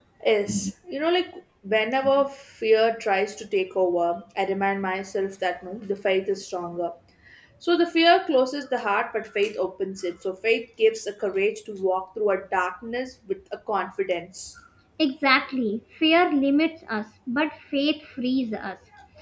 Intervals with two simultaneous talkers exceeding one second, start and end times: none

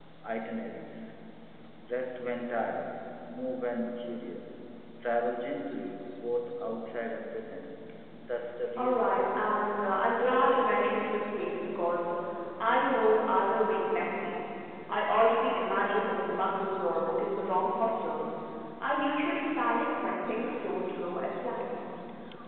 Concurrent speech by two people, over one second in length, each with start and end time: none

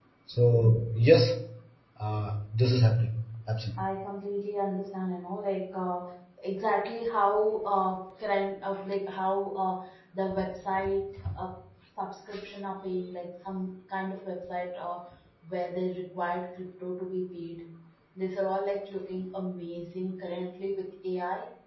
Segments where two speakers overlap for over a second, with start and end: none

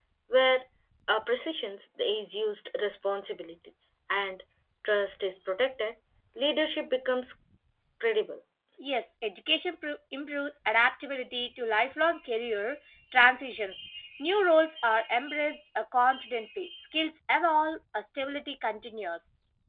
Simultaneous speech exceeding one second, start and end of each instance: none

